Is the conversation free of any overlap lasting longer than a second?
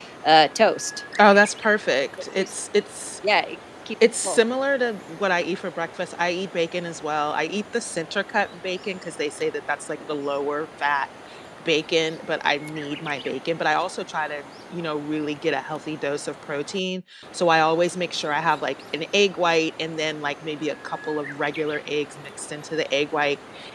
Yes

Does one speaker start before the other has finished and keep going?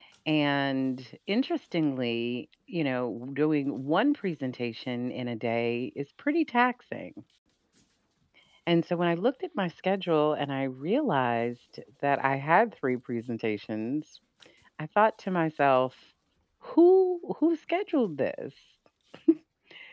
No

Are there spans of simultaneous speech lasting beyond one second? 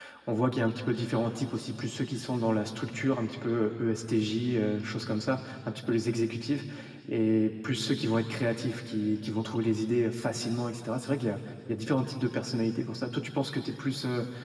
No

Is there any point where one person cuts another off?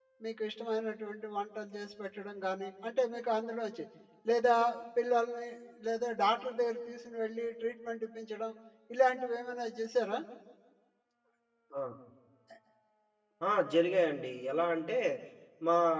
No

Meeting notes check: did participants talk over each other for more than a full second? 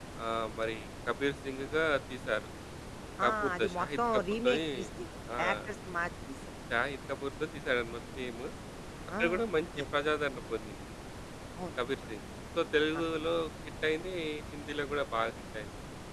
Yes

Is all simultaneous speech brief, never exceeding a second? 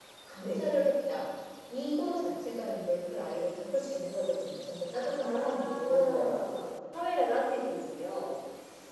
No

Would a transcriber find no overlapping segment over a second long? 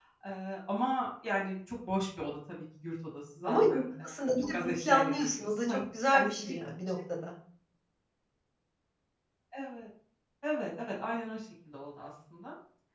No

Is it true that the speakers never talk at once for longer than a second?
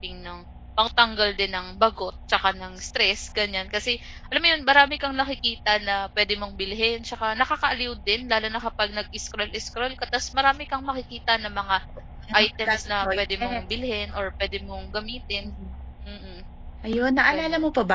No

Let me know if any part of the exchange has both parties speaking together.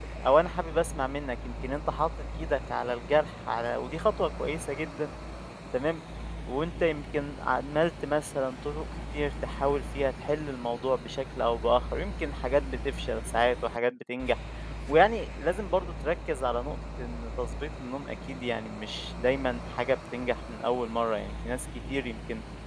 No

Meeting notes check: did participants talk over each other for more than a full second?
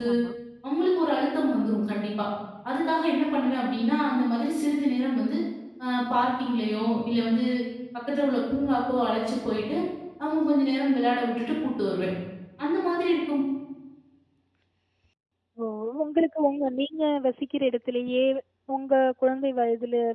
No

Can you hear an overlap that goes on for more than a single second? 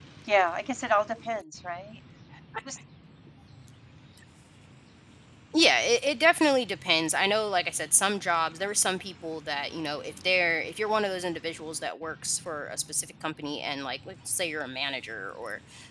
No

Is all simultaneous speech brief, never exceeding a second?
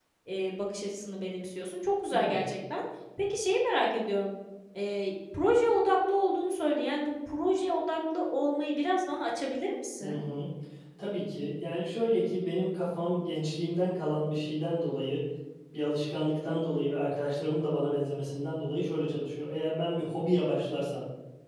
Yes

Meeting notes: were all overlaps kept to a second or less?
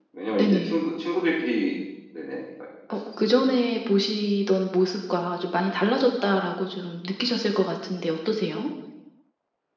Yes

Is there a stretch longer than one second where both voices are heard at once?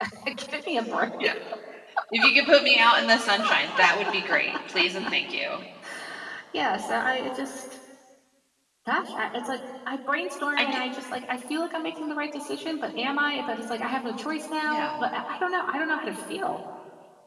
No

